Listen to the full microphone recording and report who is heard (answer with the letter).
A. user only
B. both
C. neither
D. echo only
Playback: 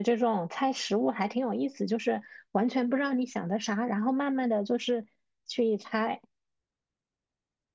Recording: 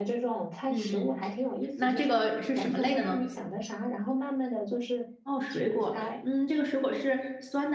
B